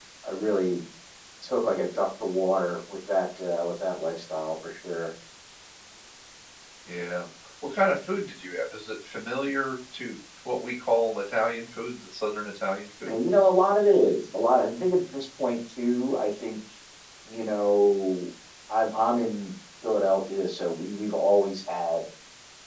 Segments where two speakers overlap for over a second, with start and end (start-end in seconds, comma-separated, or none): none